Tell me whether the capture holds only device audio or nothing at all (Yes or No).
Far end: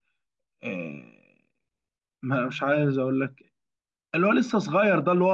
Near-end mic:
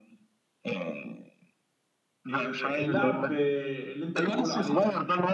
No